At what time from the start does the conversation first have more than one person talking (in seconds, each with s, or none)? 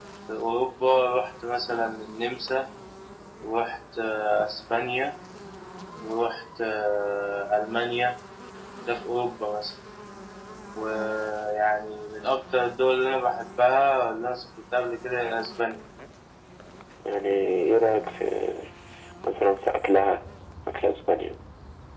none